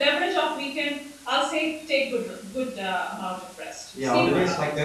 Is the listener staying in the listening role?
No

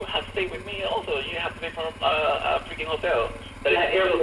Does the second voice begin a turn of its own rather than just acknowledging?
Yes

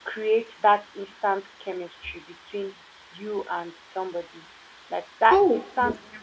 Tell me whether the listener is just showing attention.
Yes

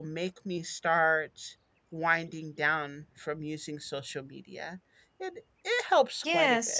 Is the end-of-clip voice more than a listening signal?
Yes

